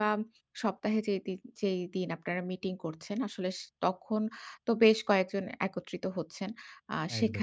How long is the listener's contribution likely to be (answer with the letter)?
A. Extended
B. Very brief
B